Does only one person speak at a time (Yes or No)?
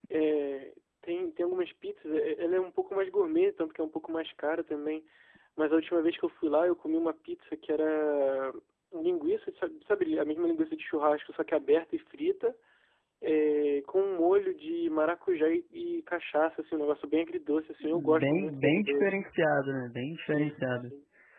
No